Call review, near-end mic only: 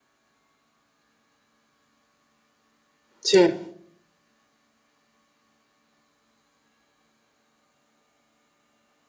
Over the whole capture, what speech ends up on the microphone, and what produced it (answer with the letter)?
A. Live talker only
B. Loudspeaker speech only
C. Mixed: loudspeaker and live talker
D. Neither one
A